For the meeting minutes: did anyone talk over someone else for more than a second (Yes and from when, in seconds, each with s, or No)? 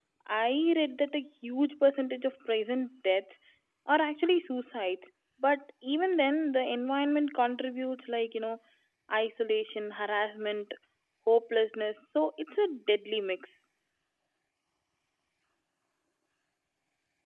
No